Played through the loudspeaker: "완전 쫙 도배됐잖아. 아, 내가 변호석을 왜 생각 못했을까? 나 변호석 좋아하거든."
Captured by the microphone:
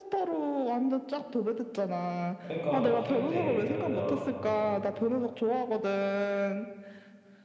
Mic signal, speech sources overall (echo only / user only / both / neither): both